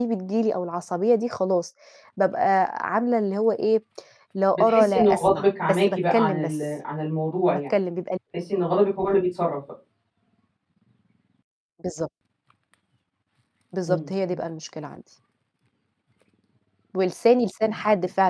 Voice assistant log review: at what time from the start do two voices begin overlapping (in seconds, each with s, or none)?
4.5 s